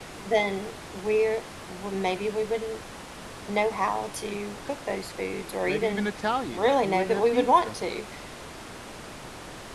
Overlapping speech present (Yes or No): Yes